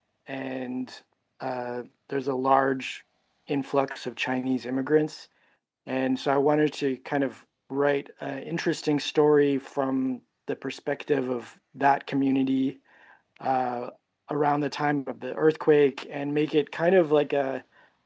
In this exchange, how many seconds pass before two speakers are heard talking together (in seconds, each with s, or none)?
none